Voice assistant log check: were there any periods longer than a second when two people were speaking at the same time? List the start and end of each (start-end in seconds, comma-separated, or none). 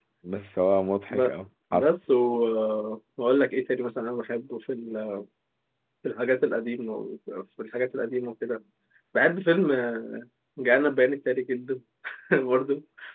none